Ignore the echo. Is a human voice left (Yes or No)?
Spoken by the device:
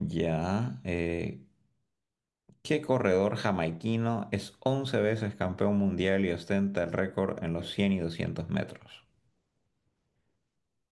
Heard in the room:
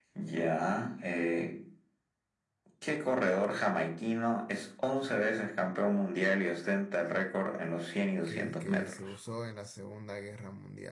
Yes